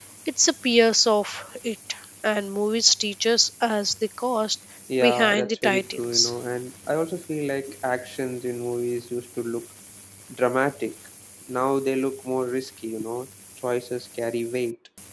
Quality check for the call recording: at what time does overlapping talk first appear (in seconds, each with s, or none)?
5.0 s